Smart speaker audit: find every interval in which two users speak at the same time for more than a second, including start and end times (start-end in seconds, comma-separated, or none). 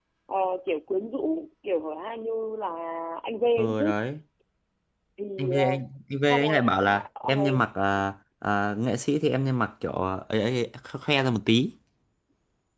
6.3-7.6